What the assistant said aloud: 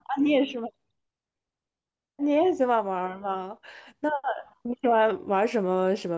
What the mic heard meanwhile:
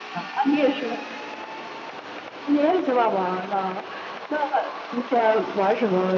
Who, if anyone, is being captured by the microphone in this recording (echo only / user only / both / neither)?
echo only